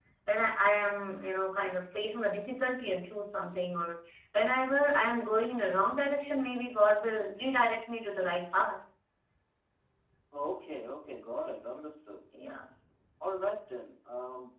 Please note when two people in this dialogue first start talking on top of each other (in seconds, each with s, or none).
none